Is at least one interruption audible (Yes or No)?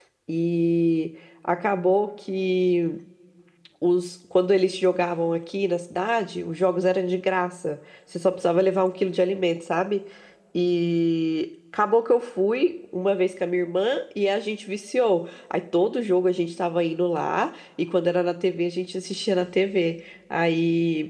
No